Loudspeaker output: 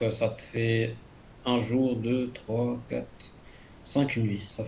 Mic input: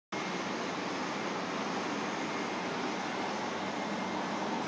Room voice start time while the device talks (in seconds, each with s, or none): none